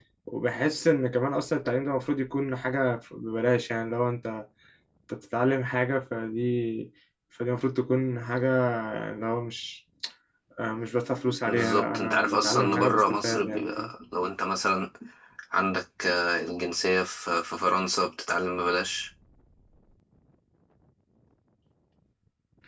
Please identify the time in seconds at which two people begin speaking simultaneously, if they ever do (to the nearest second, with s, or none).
11 s